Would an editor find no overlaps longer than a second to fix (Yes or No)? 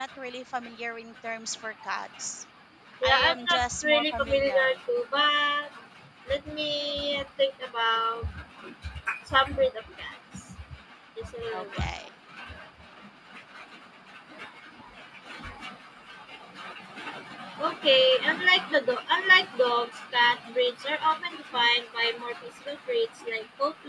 No